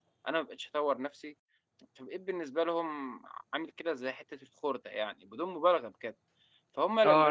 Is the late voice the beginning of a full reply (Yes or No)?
Yes